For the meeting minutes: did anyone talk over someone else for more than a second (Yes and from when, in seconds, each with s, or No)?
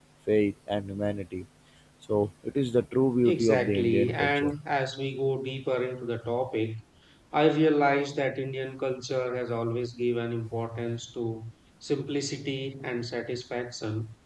Yes, from 3.2 s